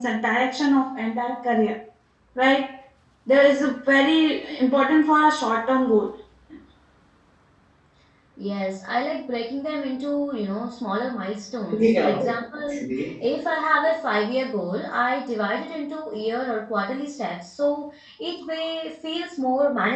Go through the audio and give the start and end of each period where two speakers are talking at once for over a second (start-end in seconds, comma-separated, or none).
11.7-13.0